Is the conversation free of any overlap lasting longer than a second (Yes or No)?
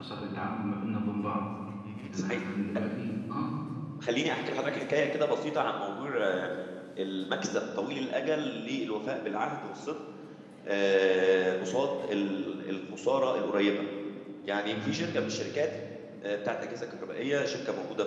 Yes